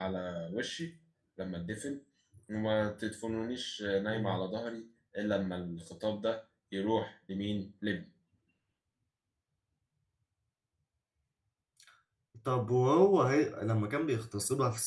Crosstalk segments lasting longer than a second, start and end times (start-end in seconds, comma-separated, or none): none